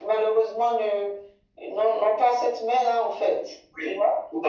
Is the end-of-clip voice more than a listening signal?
Yes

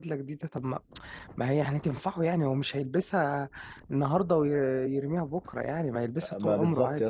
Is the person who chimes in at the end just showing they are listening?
No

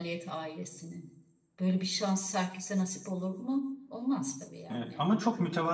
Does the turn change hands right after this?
Yes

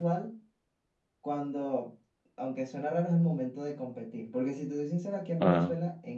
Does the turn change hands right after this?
No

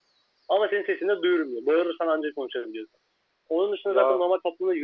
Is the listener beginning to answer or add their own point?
No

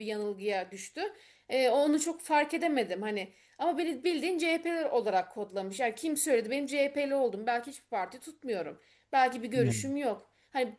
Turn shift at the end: No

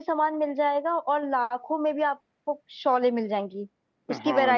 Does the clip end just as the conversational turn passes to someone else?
Yes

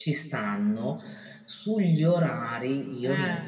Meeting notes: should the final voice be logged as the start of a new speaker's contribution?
No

